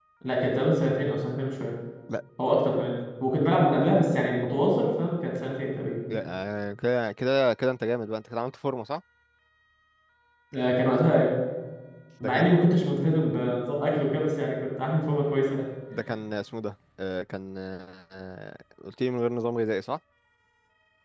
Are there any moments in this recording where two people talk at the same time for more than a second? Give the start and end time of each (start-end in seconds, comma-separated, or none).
none